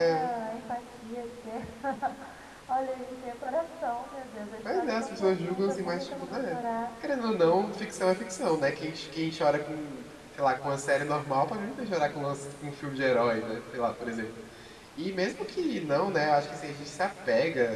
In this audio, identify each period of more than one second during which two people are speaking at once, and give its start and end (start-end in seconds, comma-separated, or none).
4.6-6.6